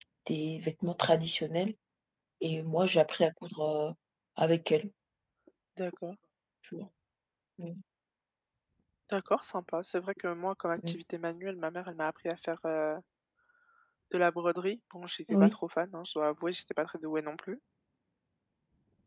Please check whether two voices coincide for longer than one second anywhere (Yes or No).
No